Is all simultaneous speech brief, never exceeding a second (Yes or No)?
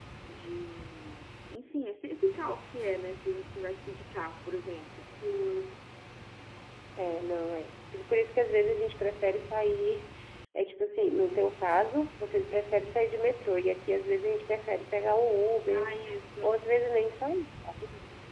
Yes